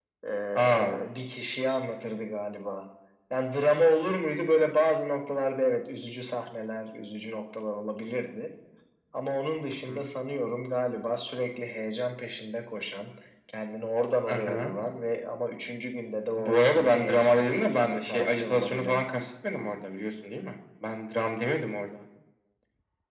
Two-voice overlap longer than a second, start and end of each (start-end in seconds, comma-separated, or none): 16.4-19.0